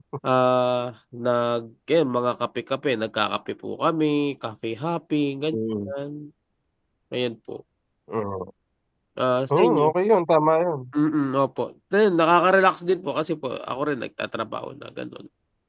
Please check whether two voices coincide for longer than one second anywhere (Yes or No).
No